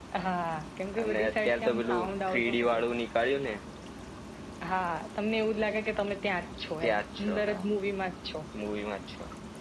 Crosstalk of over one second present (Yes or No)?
Yes